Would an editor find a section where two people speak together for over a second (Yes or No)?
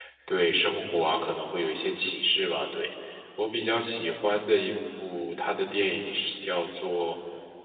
No